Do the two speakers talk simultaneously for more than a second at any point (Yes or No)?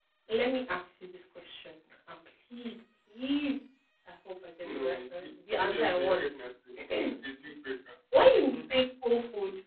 Yes